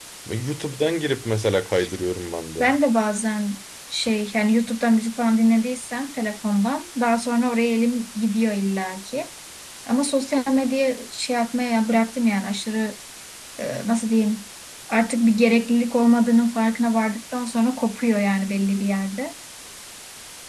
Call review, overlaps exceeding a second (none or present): none